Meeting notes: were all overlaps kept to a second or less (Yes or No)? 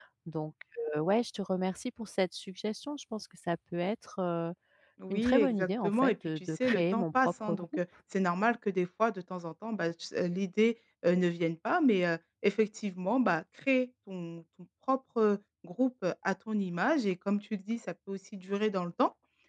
No